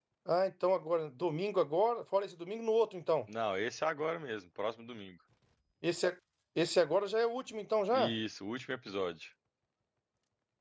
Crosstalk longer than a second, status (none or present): none